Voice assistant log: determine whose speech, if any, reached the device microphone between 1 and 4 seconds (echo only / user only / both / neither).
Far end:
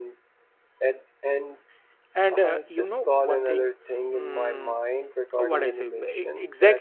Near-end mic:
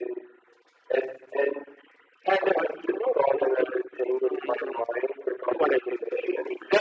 echo only